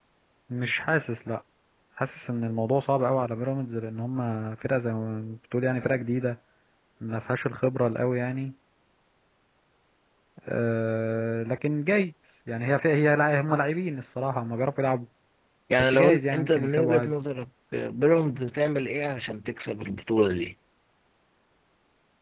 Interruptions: present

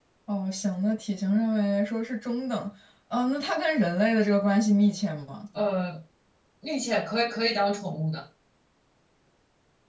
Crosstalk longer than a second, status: none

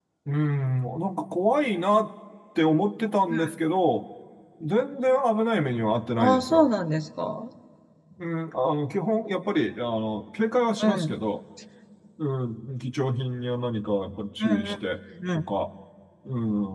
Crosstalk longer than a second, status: none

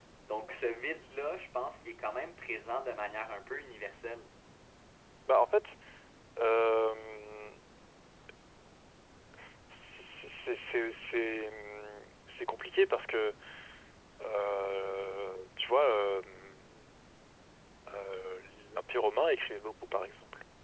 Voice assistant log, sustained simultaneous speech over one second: none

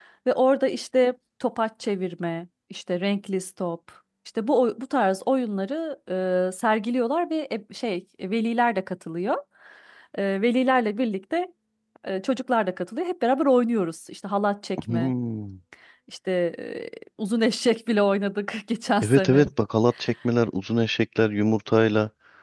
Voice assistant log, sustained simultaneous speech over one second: none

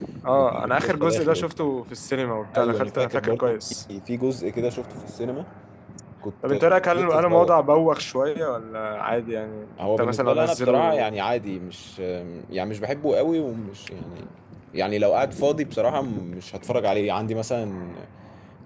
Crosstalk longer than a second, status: present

